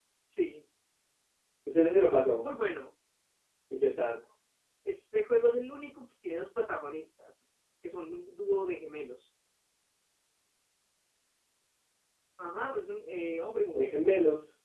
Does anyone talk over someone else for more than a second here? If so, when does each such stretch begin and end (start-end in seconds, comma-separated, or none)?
none